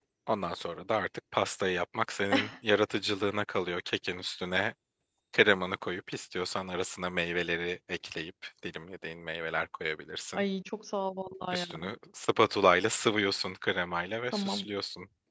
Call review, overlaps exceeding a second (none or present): none